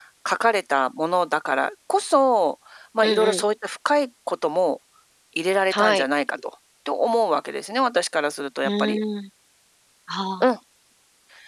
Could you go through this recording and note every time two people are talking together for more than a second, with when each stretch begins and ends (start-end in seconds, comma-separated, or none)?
none